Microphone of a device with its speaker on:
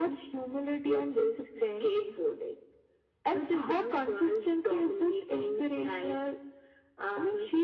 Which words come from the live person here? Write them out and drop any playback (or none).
none